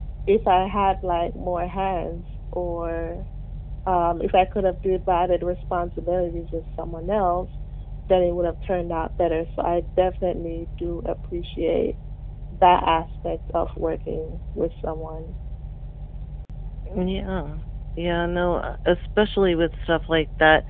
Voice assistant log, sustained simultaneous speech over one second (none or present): none